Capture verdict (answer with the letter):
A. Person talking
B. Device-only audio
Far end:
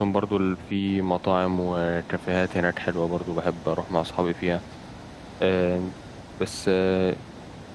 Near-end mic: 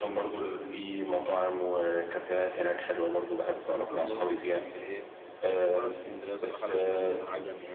A